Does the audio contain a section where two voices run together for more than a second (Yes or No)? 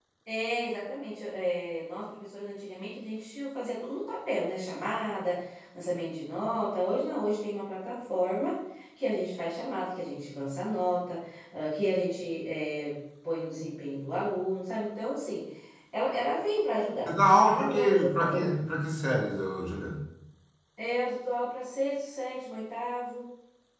Yes